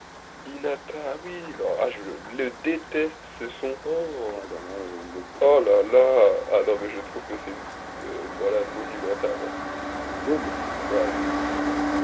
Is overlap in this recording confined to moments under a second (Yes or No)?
Yes